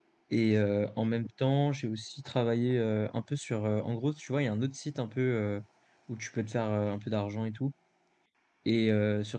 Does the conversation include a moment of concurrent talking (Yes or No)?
No